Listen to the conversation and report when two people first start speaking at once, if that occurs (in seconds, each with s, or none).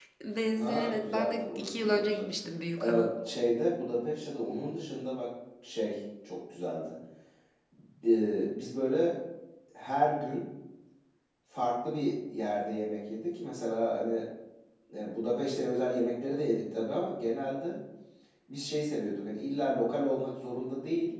0.6 s